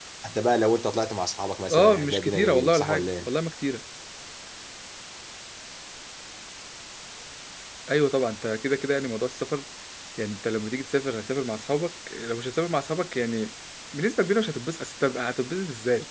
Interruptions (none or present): present